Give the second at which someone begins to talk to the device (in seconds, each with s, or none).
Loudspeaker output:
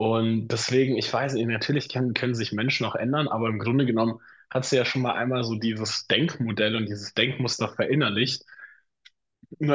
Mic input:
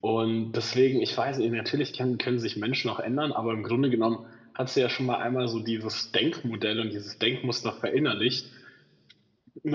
none